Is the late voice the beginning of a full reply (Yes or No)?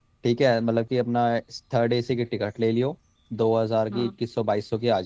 No